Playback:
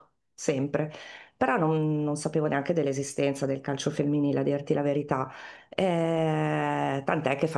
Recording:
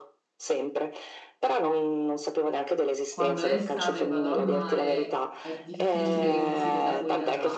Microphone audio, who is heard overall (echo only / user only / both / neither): both